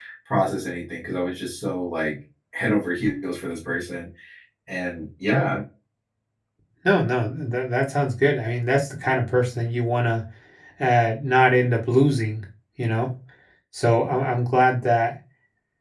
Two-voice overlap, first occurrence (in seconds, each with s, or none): none